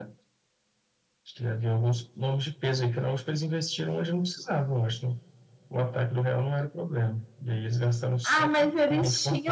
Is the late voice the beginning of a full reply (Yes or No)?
Yes